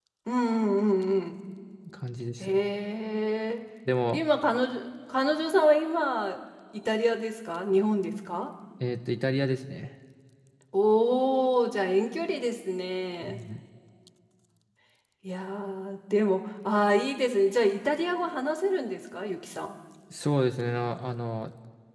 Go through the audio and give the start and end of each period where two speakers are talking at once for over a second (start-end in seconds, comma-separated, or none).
none